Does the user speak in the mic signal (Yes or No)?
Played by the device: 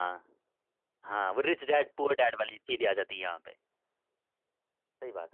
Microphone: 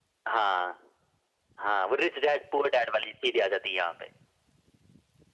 No